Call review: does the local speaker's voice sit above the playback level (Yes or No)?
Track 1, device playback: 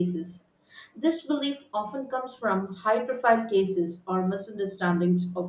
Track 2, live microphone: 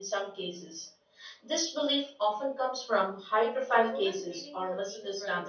No